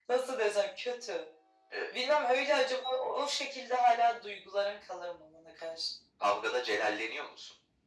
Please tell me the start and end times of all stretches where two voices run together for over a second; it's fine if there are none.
none

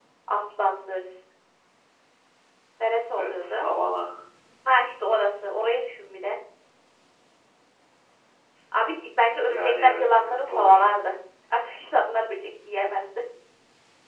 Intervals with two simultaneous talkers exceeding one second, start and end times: 9.4-10.8

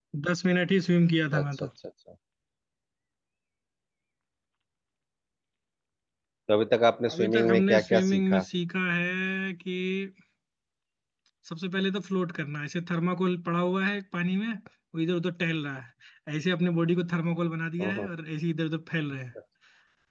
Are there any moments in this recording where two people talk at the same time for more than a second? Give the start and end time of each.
7.1-8.4

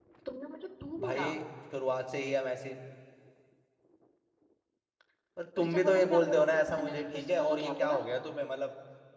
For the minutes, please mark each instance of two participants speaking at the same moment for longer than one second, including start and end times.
5.6-8.0

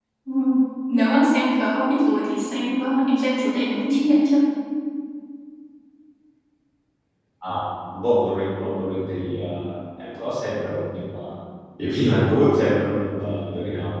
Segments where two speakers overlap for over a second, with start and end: none

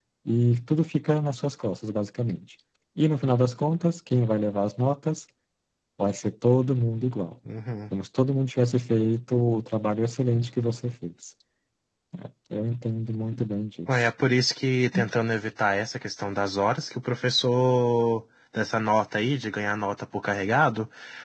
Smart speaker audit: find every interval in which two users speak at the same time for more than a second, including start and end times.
none

